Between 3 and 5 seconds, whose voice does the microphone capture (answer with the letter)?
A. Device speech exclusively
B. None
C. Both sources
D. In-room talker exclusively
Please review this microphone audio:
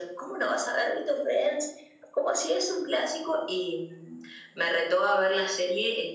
A